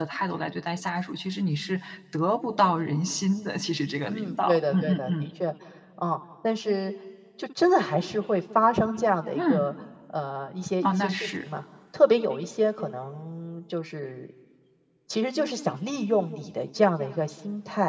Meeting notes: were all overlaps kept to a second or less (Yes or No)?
No